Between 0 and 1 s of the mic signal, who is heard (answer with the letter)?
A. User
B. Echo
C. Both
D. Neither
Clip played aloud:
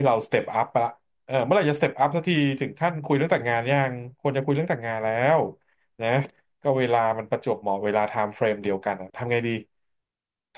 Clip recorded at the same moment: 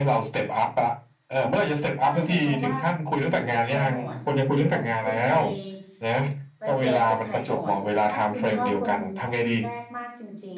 B